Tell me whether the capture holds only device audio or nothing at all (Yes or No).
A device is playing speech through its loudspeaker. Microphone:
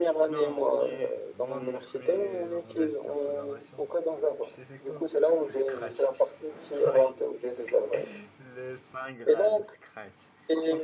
No